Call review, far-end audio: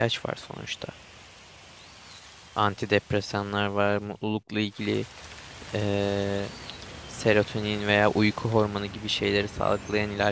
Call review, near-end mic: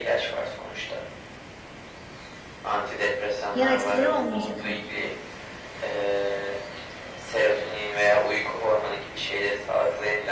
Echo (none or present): present